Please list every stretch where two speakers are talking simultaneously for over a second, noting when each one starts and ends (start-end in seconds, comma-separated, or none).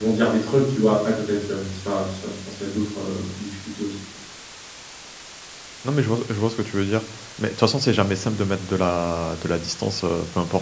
none